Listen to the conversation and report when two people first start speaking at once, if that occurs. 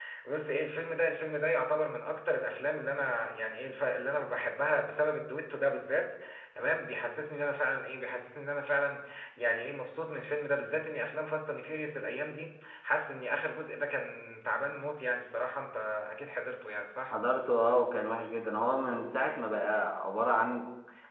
none

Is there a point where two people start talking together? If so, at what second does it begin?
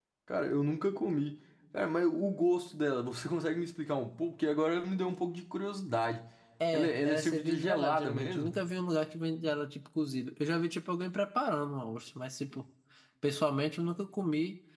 6.7 s

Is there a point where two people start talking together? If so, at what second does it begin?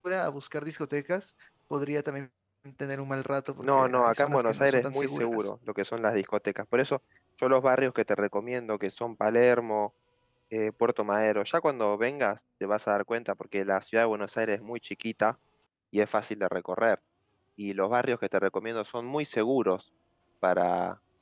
3.6 s

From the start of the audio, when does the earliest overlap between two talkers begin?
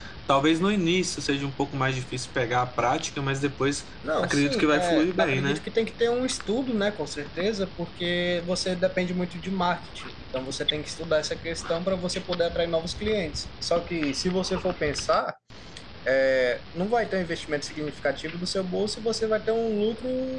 4.2 s

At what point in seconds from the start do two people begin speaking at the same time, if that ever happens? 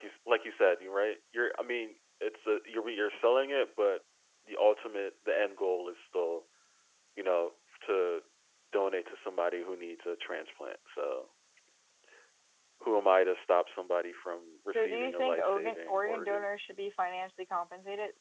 14.7 s

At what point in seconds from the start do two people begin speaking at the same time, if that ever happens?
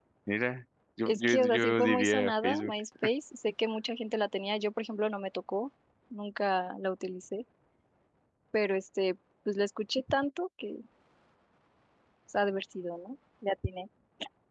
1.1 s

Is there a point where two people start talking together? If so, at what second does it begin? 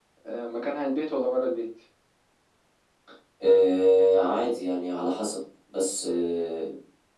none

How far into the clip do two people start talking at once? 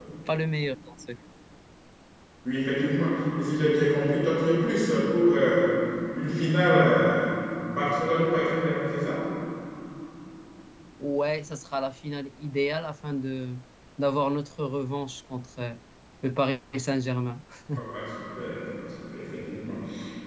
none

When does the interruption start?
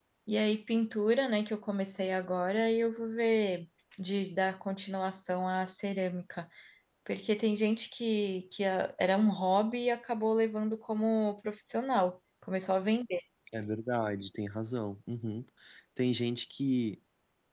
none

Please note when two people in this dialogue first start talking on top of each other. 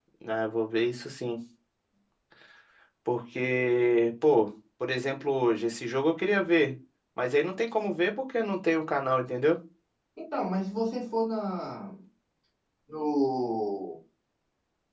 none

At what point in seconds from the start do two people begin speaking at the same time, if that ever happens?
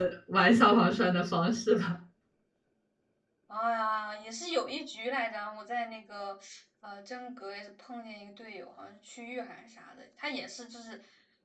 none

